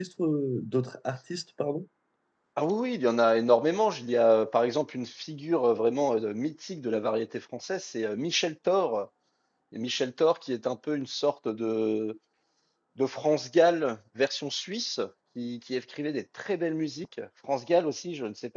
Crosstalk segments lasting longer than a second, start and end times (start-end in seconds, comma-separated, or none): none